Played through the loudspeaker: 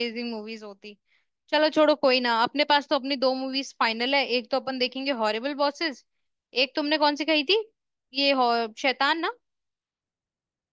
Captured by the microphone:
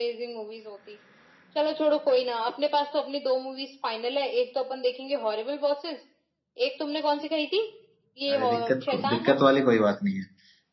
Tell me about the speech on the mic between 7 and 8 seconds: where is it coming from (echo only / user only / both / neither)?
echo only